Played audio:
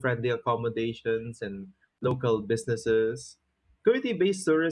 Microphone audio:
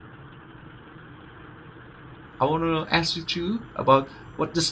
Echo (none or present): none